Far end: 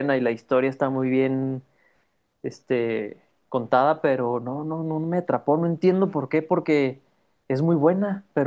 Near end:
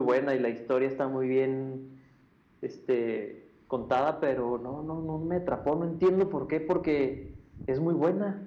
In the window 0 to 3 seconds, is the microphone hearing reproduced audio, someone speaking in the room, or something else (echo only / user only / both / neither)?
echo only